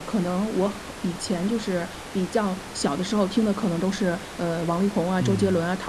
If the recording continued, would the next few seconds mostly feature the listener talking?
No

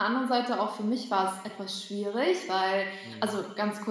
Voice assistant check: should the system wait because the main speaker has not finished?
Yes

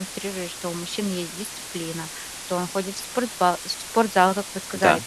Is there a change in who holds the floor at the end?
No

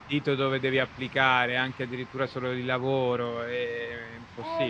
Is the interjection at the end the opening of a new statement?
Yes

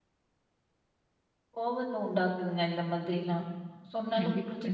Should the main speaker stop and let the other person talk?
Yes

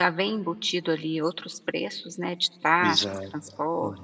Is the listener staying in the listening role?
No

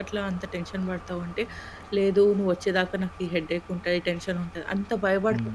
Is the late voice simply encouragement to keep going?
No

